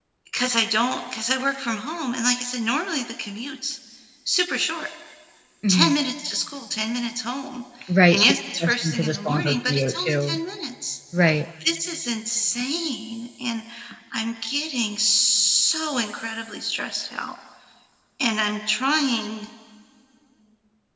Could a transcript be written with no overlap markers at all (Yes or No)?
No